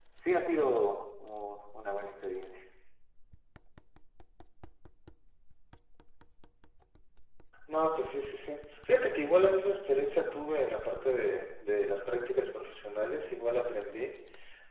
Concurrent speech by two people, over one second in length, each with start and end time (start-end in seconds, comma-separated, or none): none